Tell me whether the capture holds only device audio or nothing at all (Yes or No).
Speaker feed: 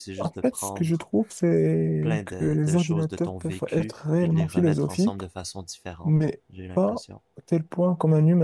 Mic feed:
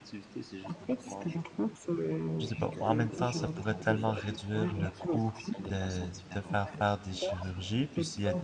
No